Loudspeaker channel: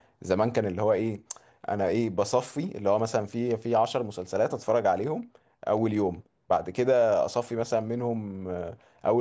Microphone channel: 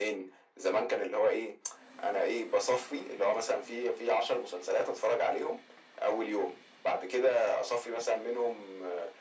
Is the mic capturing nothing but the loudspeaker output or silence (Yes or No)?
Yes